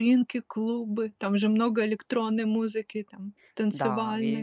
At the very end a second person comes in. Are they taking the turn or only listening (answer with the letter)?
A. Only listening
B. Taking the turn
B